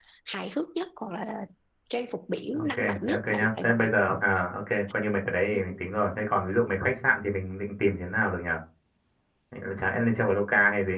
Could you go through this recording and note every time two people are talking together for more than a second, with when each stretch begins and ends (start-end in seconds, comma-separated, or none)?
2.5-3.9